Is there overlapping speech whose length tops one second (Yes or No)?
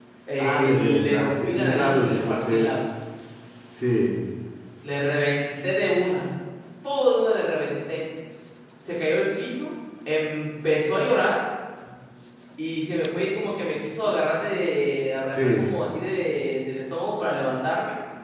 Yes